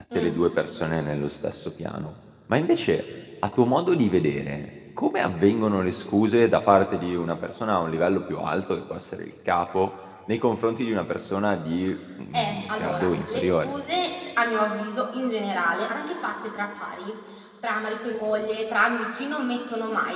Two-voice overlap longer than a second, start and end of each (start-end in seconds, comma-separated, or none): 12.3-13.7